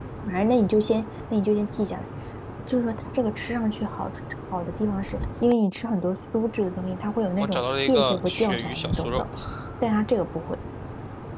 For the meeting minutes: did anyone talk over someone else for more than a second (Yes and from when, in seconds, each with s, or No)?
Yes, from 7.4 s